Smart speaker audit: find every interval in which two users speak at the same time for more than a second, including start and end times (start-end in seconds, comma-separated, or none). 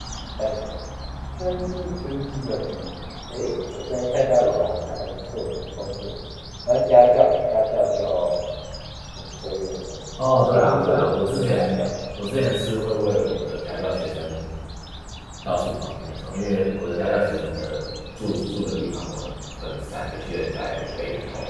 10.5-11.8